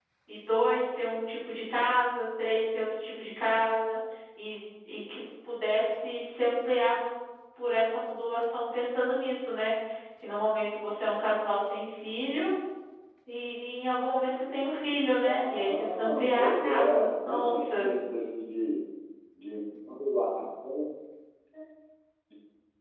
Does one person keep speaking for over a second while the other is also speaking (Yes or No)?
Yes